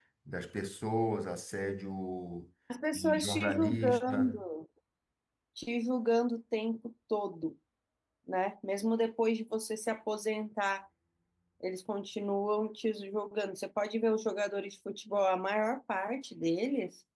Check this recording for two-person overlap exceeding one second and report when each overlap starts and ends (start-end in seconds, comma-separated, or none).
2.9-4.4